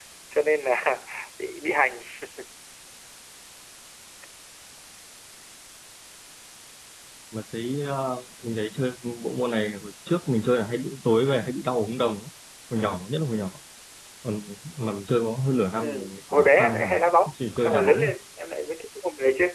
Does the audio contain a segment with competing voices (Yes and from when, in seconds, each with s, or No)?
Yes, from 15.8 s